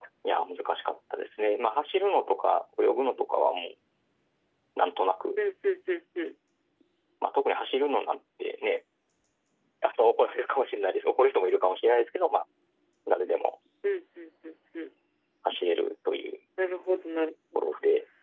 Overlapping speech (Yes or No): No